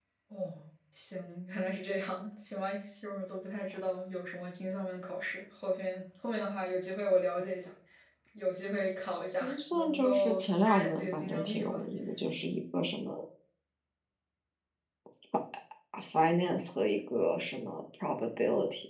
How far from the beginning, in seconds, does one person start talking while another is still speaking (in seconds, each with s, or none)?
9.4 s